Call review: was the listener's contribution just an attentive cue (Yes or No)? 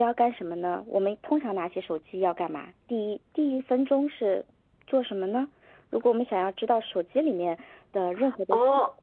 No